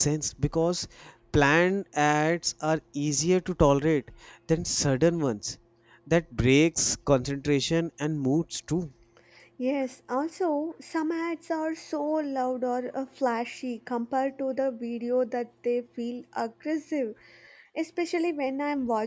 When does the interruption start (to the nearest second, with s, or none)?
none